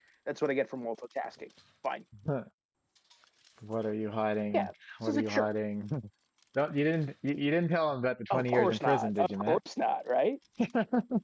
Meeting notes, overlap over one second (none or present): present